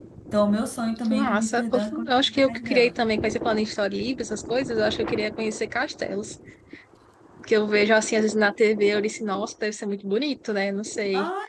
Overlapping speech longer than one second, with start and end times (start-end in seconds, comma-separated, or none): 1.1-2.9